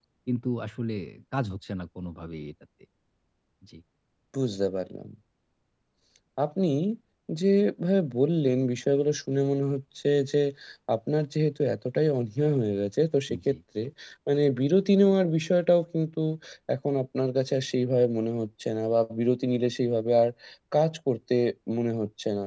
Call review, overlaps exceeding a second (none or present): none